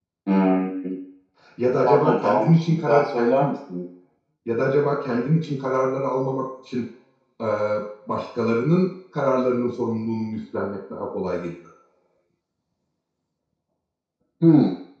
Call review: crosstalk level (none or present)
present